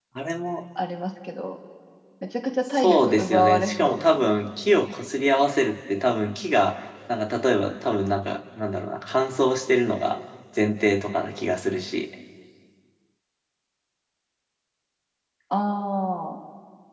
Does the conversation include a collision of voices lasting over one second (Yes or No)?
Yes